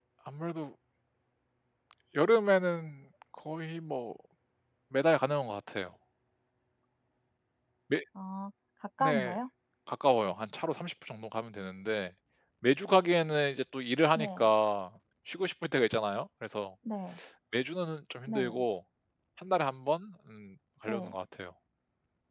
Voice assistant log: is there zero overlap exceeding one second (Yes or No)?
Yes